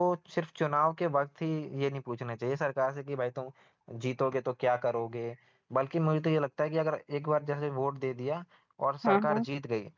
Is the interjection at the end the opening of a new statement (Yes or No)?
No